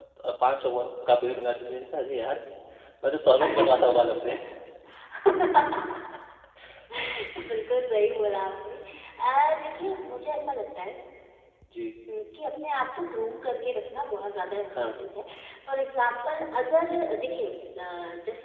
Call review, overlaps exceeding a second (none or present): none